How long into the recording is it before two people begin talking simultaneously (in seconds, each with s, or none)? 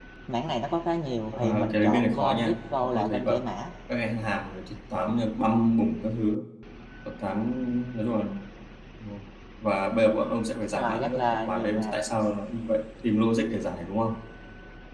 1.3 s